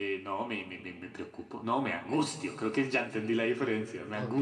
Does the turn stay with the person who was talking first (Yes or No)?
No